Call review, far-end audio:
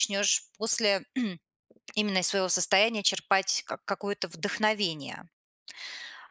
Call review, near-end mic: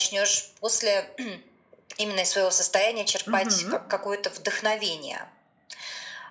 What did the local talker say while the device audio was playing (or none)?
Мгм.